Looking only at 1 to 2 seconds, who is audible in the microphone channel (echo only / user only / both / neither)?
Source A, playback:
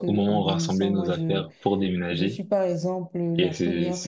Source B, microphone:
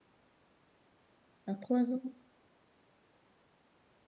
user only